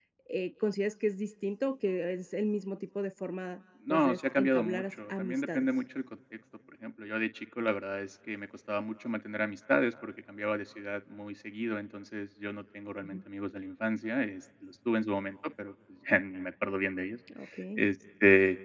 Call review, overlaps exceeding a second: present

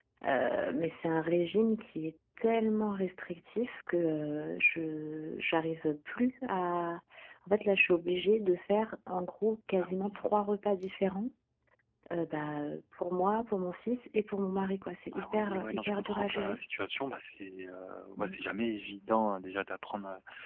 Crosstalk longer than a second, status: present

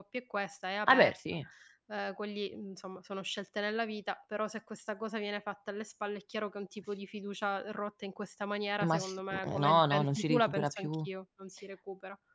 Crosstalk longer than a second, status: present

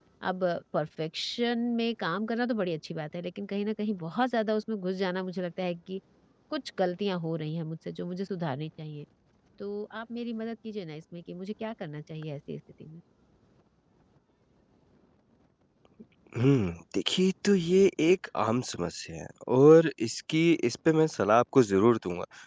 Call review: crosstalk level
none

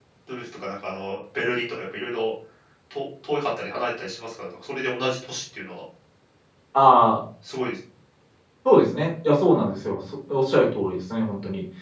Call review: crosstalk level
none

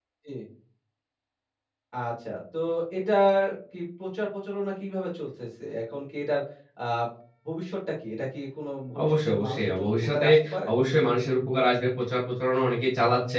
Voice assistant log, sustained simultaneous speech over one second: present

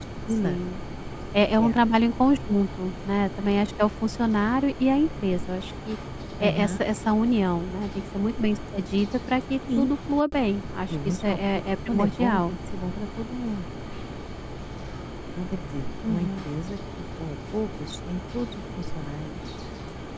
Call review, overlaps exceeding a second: present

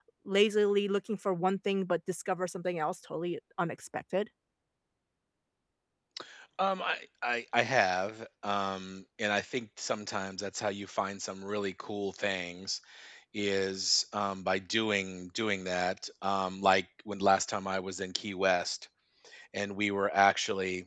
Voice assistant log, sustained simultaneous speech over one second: none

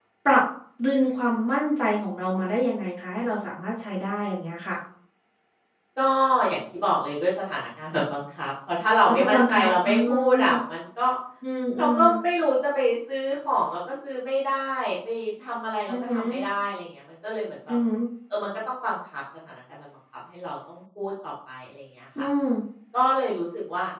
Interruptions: present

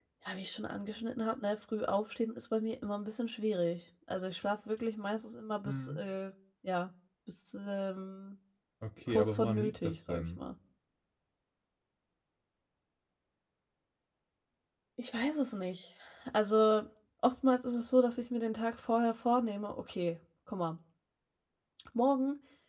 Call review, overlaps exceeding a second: present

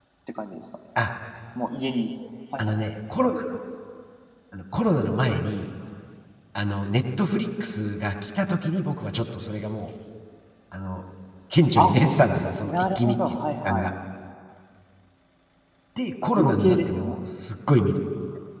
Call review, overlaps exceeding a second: present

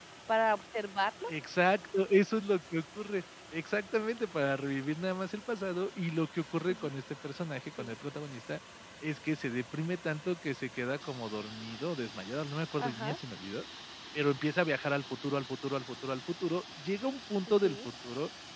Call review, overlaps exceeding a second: none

